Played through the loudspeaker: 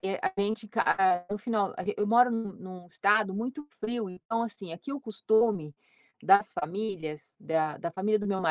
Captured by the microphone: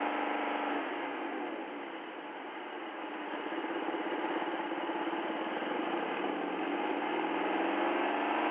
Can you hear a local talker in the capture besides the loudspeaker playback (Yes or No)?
No